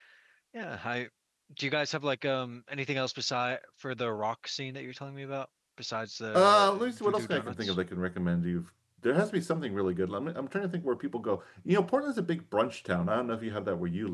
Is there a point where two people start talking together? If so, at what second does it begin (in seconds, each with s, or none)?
6.3 s